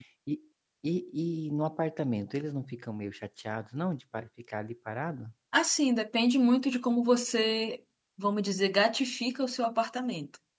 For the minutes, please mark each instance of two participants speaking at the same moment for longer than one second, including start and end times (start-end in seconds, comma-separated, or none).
none